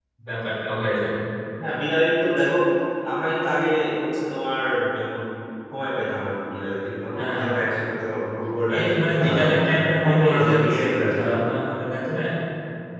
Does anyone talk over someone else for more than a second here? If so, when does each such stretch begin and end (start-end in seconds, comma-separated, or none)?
8.7-11.3